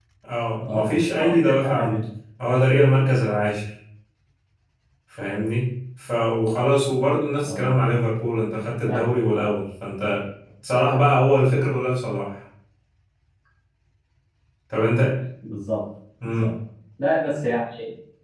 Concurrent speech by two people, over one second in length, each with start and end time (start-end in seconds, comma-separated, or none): 0.6-2.0